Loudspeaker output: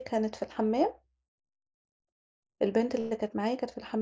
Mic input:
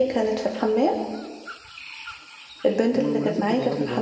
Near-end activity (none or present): present